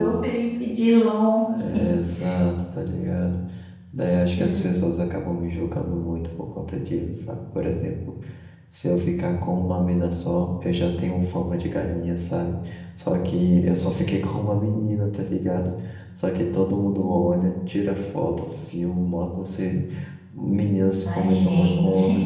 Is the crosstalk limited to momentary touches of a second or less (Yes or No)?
No